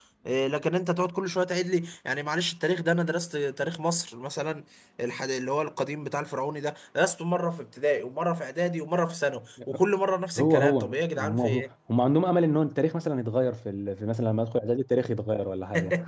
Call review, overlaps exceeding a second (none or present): present